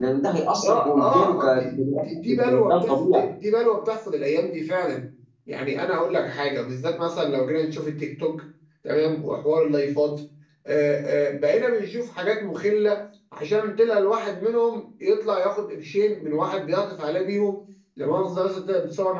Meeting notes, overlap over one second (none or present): present